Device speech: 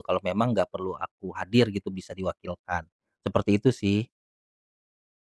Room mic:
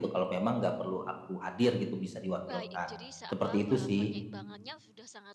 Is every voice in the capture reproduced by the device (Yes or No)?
No